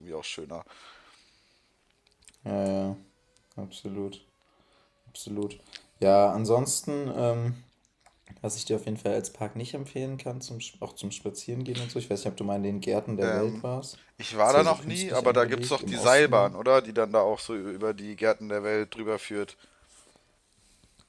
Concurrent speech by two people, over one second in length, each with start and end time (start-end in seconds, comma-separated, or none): 14.4-16.5